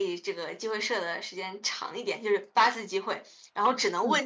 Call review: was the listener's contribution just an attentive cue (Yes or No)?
Yes